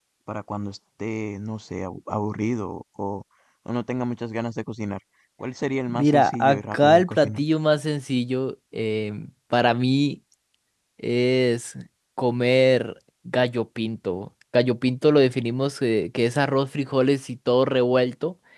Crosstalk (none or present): present